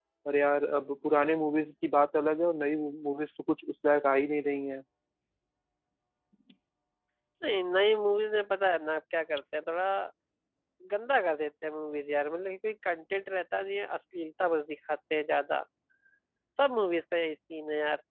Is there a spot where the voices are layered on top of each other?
No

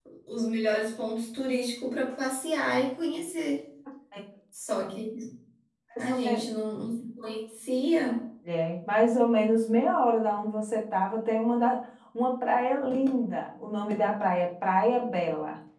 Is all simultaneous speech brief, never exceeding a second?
Yes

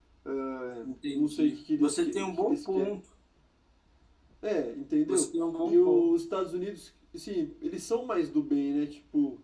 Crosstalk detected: Yes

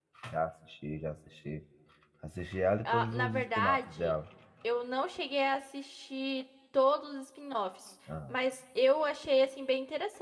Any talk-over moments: Yes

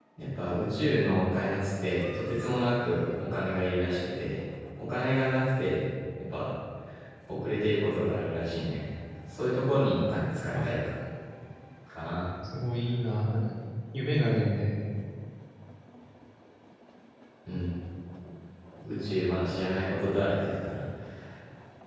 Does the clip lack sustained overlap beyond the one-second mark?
Yes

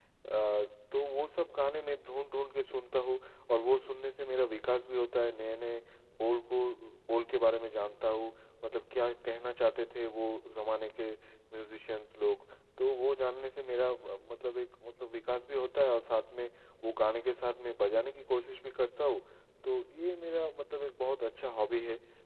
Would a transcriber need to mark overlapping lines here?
No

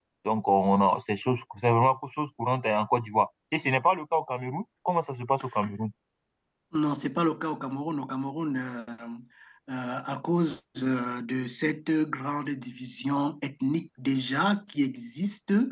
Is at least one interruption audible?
No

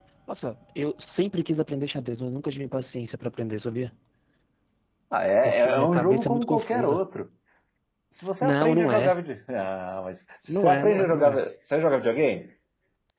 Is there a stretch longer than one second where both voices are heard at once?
Yes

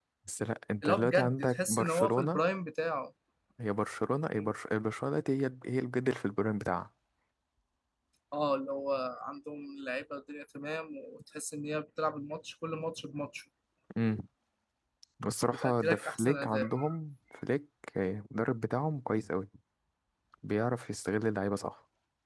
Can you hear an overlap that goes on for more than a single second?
Yes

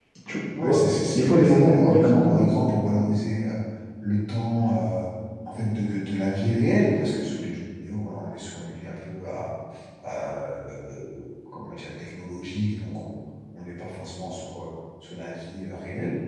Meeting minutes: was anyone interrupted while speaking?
Yes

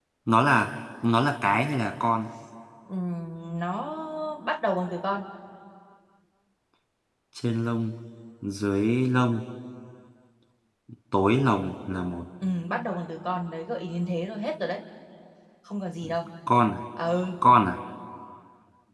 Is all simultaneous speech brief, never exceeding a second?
Yes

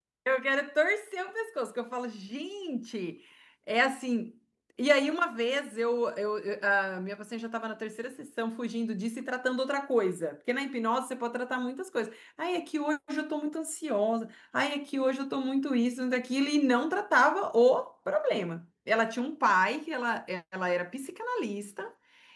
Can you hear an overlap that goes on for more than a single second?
No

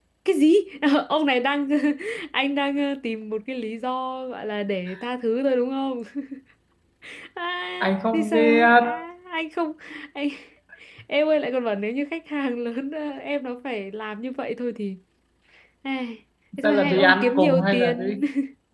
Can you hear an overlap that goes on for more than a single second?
Yes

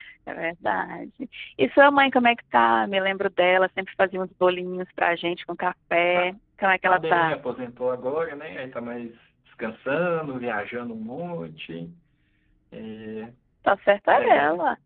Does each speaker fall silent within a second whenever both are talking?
Yes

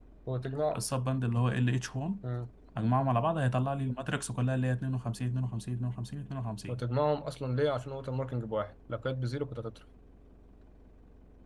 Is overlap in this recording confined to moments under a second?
Yes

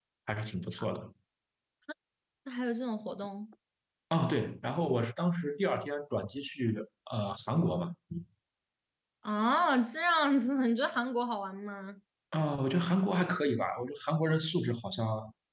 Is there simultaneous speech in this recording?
No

